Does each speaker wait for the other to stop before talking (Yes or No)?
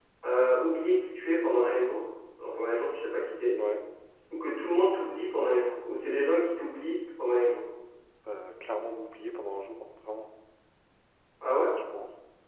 Yes